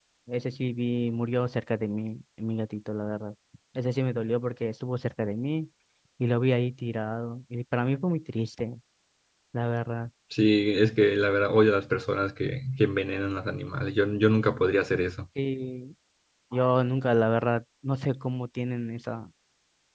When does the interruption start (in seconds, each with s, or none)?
none